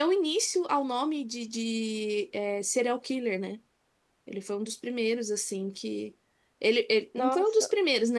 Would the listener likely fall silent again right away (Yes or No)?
Yes